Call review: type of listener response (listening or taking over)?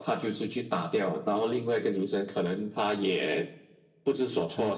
listening